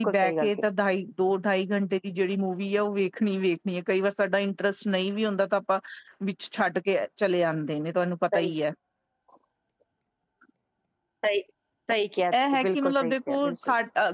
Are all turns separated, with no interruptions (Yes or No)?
No